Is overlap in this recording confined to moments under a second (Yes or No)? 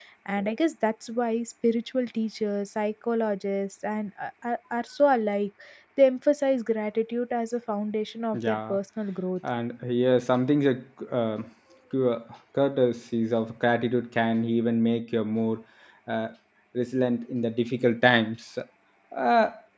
Yes